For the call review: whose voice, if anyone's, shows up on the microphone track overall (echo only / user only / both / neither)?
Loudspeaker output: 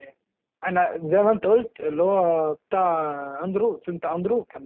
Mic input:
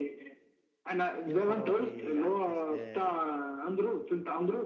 both